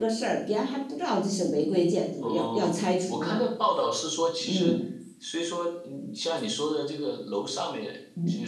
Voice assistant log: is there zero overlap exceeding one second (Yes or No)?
No